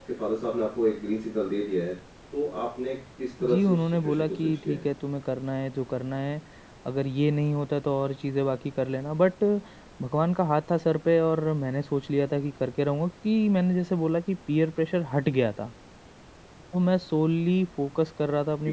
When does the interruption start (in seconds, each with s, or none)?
3.4 s